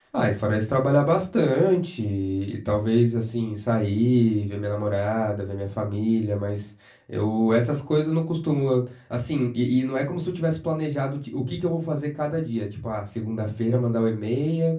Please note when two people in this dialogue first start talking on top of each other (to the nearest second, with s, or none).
none